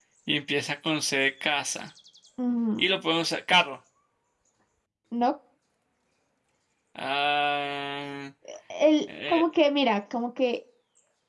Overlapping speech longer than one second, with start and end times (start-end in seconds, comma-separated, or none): none